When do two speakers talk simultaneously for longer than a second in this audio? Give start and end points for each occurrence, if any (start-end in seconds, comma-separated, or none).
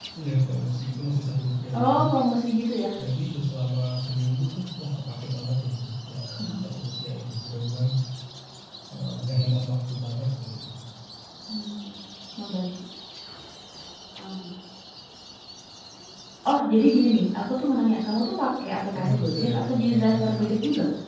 19.0-20.5